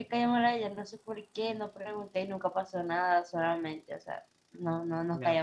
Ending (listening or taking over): taking over